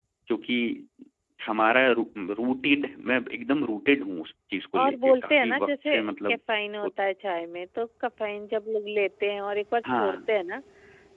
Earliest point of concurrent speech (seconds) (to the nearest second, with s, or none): 5 s